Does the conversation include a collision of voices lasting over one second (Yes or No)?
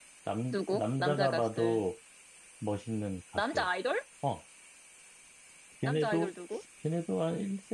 Yes